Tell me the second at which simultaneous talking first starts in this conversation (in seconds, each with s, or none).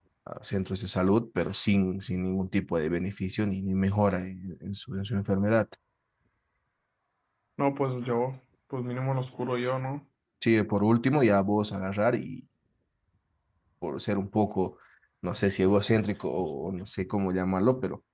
none